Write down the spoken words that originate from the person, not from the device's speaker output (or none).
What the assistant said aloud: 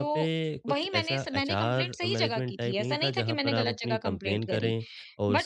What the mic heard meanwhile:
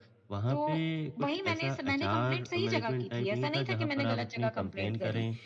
none